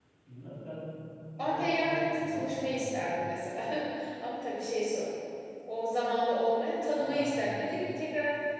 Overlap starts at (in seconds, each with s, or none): 1.4 s